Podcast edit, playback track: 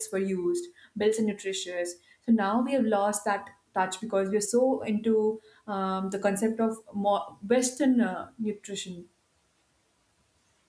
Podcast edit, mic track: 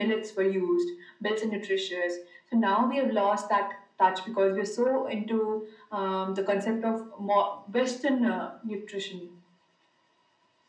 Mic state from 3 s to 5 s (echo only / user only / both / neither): echo only